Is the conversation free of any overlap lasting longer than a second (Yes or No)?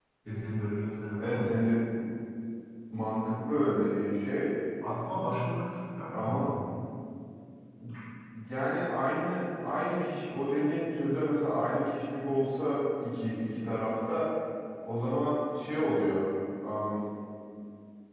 Yes